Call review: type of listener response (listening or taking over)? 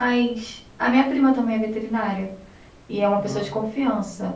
listening